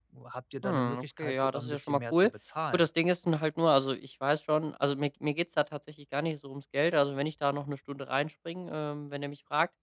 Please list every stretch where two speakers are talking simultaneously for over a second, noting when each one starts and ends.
0.6-2.3

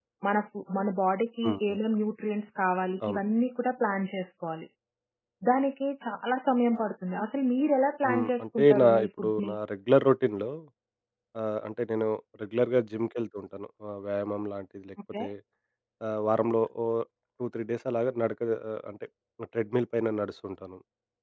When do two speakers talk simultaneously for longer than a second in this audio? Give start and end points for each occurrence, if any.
8.1-9.5

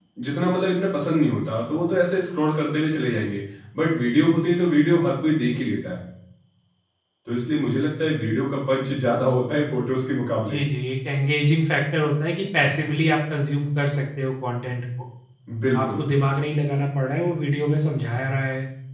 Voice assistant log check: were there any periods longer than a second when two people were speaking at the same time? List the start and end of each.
none

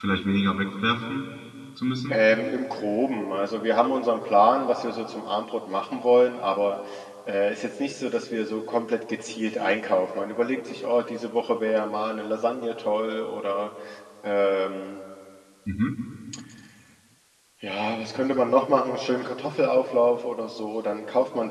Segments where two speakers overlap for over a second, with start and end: none

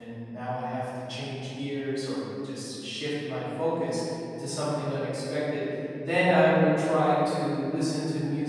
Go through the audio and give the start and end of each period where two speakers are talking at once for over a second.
none

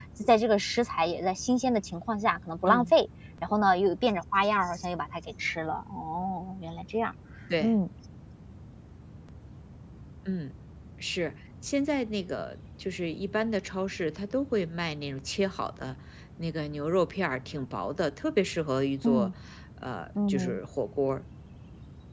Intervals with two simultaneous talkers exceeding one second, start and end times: none

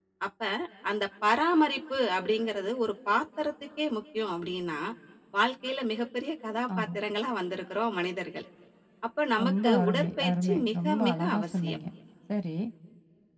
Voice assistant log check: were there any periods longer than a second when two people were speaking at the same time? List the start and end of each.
9.4-11.8

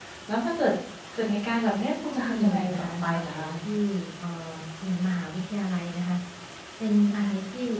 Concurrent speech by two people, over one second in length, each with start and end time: 2.1-3.5

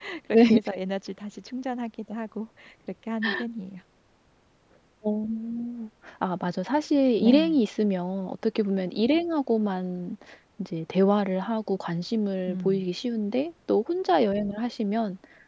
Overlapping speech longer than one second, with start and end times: none

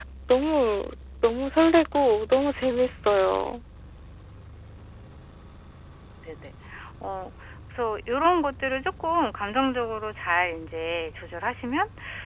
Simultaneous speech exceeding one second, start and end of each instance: none

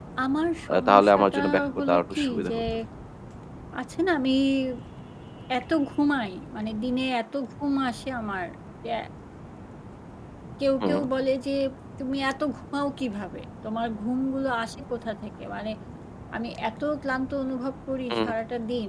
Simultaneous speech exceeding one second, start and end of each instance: 0.7-2.6

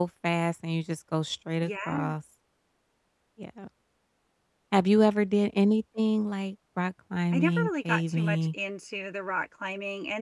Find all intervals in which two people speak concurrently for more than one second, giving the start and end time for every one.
7.3-8.5

